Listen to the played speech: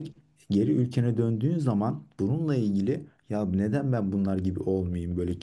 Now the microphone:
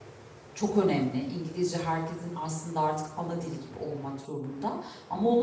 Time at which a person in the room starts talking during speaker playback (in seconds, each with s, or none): 0.5 s